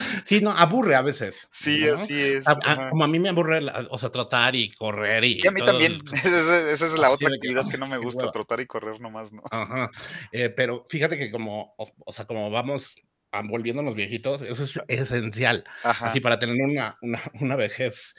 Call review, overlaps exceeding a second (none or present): present